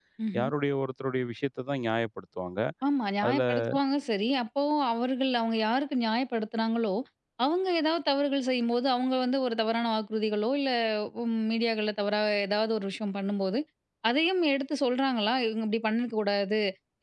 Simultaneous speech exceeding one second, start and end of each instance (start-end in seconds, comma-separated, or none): none